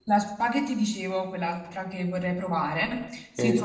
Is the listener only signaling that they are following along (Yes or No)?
Yes